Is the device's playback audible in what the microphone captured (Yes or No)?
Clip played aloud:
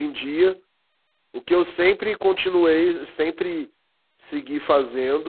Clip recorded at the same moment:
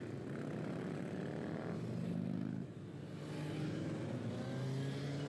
No